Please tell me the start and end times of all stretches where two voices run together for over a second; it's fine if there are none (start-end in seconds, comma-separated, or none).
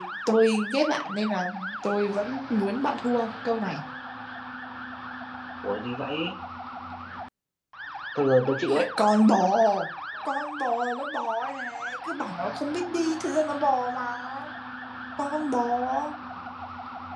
none